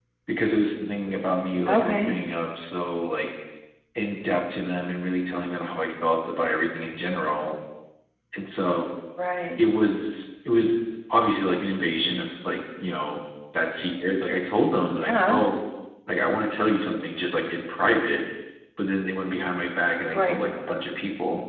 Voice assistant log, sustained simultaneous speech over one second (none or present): none